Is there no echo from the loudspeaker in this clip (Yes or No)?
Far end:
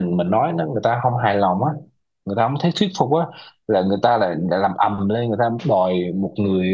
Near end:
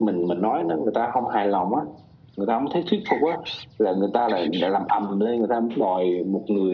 No